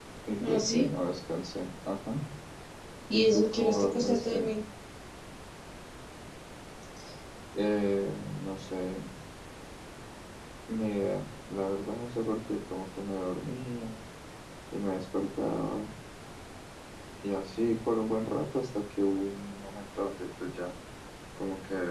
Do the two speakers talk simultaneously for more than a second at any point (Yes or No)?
Yes